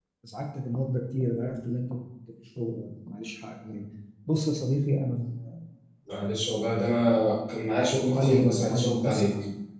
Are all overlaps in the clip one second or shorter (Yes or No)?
No